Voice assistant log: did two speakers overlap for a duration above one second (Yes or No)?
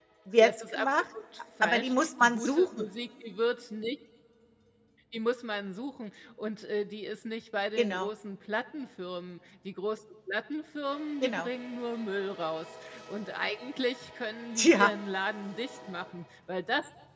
Yes